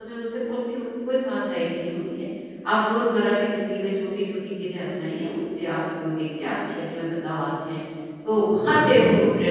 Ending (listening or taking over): listening